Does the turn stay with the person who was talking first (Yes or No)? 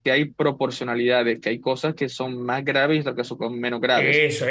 No